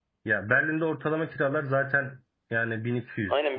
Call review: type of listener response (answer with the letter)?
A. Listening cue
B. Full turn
B